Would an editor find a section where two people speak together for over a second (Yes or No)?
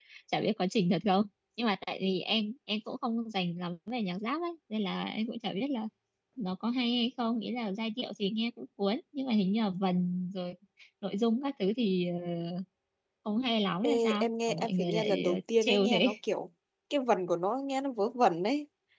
Yes